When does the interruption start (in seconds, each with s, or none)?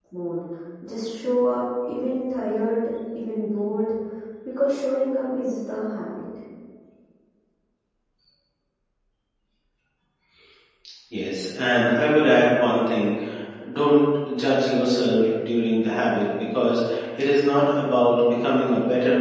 none